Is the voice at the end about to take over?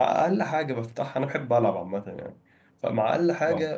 No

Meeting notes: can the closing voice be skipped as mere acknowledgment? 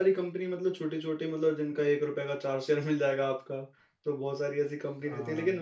Yes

